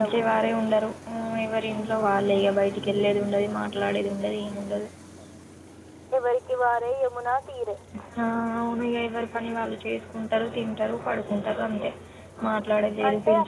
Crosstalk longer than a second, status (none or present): none